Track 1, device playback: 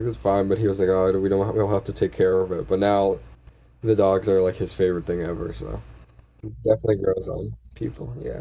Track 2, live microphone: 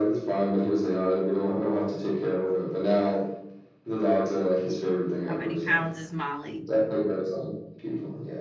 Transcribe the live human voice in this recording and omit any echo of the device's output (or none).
How many pounds is Molly?